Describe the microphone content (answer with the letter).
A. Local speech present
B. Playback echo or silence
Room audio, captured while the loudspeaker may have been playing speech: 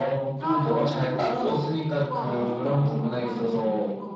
A